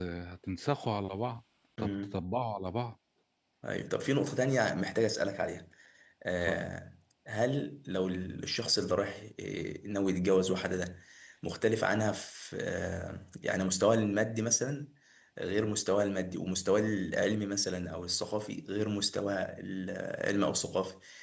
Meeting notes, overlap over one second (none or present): none